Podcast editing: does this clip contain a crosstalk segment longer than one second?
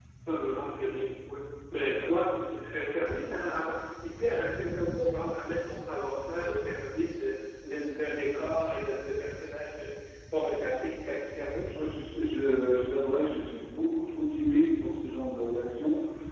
No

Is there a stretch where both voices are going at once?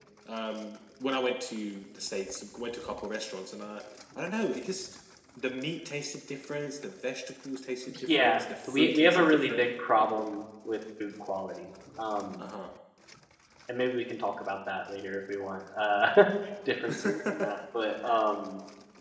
Yes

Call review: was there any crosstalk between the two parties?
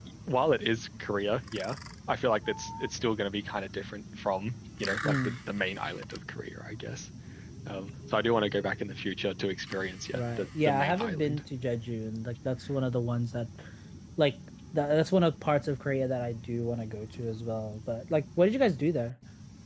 Yes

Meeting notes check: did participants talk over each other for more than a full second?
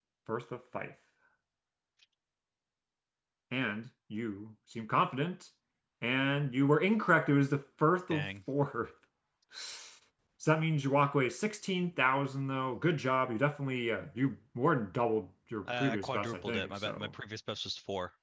Yes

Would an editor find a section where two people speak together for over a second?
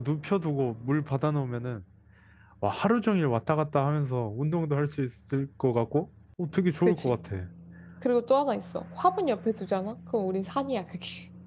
No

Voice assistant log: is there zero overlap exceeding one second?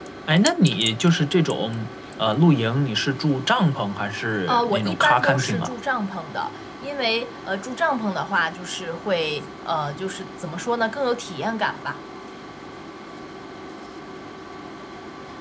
No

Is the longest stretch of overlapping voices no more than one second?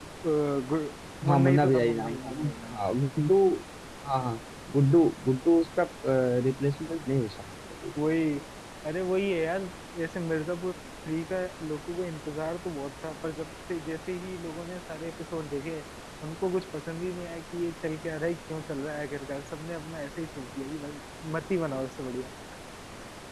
No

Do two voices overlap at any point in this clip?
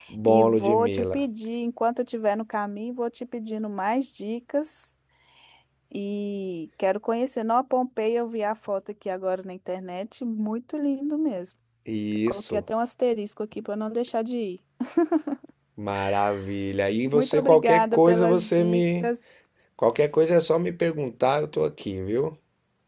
Yes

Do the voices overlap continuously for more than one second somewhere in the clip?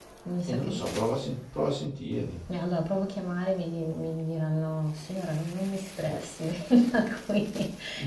No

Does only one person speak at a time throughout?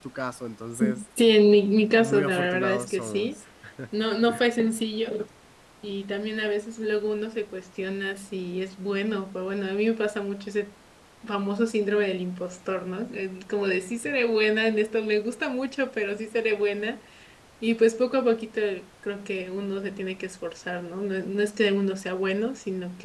No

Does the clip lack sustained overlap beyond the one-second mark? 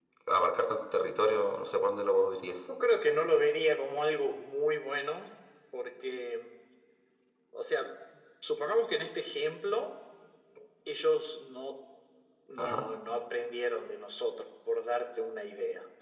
Yes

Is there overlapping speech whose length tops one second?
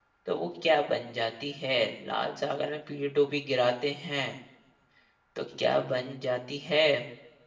No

